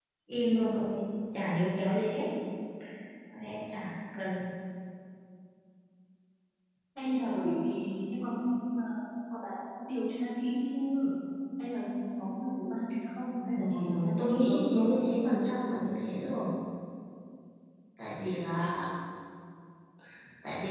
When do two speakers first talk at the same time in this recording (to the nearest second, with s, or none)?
14 s